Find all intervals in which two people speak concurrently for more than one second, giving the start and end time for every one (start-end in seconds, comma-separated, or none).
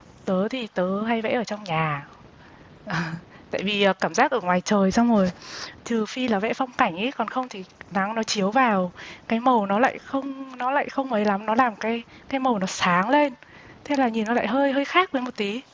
none